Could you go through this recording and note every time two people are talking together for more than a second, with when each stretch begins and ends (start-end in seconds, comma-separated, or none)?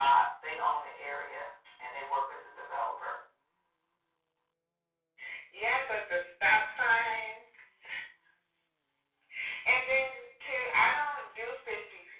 none